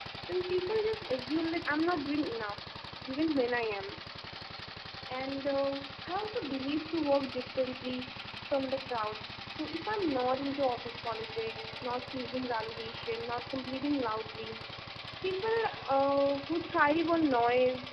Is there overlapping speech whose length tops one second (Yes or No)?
No